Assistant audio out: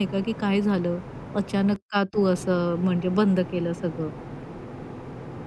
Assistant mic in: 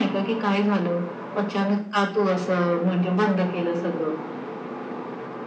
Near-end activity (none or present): none